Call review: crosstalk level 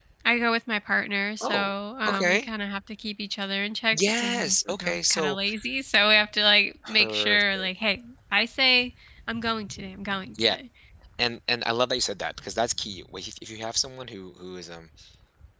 present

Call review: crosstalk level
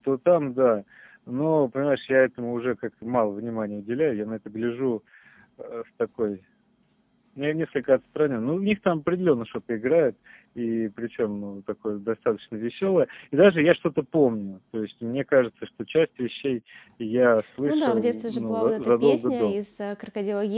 present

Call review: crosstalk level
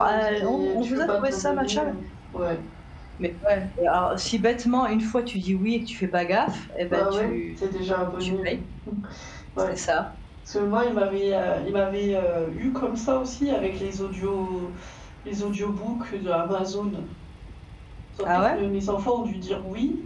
present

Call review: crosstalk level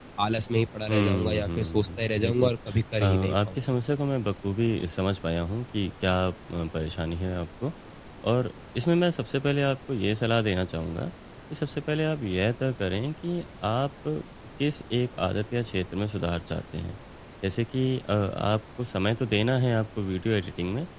present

